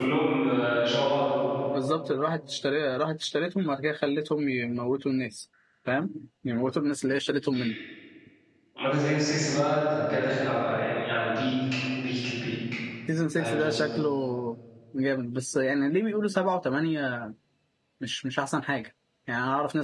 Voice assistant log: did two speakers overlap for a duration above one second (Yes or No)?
No